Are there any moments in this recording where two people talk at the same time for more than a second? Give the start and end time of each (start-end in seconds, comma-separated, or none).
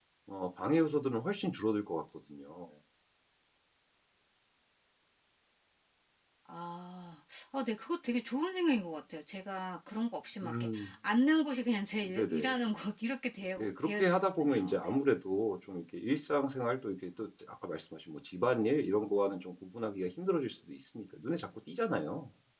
13.6-15.0